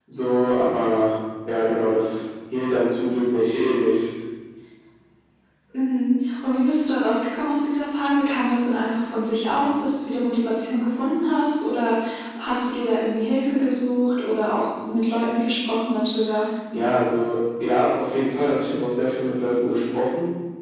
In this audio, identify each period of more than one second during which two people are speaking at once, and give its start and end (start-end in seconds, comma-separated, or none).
none